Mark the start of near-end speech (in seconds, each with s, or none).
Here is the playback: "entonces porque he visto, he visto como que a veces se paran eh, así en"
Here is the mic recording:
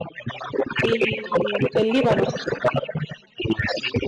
0.8 s